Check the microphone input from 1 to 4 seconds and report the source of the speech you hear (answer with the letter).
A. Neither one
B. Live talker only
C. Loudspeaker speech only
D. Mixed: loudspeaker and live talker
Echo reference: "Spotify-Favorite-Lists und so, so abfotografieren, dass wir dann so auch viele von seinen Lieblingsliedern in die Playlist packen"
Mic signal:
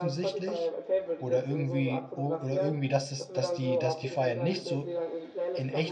D